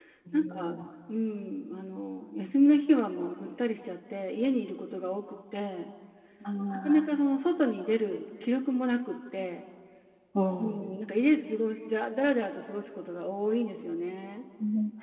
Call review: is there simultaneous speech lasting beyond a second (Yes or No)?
No